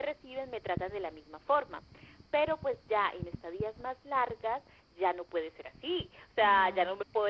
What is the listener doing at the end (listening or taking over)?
listening